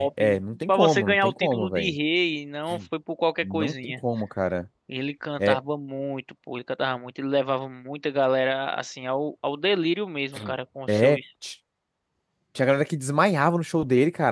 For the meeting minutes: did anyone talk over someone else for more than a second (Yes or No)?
Yes